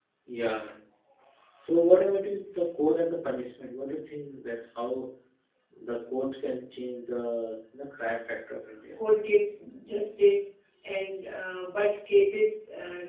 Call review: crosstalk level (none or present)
none